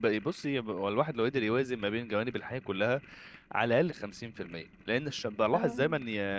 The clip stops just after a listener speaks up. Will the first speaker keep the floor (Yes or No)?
Yes